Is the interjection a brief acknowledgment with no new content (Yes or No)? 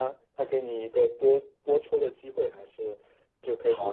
No